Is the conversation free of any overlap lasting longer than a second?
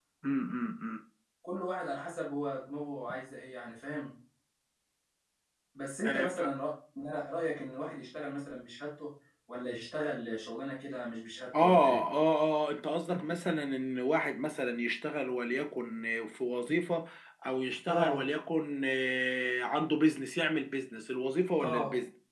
Yes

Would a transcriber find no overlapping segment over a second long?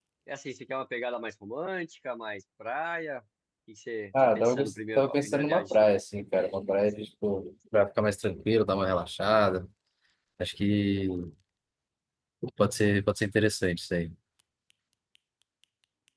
No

